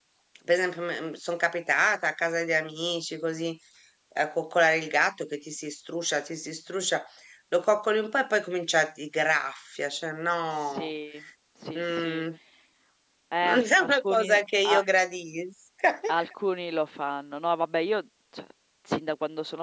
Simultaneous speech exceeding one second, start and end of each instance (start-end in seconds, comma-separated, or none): 13.4-14.8